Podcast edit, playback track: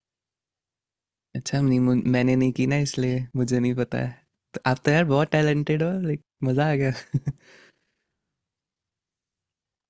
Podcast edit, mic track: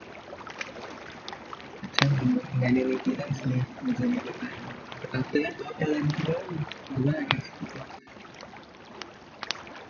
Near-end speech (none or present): none